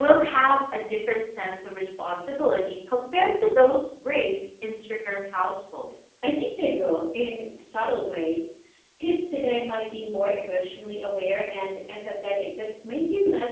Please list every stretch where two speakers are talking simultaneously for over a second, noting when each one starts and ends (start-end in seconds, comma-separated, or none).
none